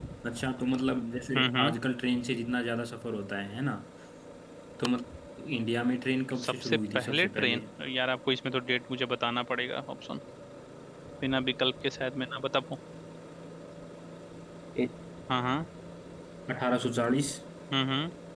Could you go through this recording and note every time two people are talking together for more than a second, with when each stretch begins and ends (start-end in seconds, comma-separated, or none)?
6.4-7.6